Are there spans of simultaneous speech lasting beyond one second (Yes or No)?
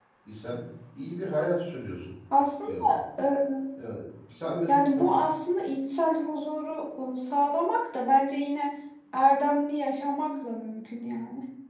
No